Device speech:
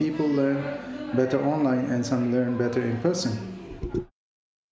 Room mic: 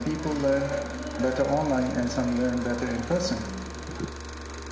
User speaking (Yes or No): No